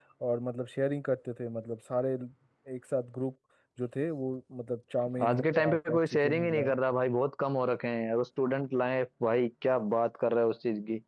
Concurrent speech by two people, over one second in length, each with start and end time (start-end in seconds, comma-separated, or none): 5.2-6.7